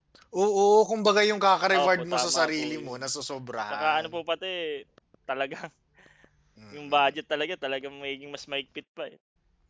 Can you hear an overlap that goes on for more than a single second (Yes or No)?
Yes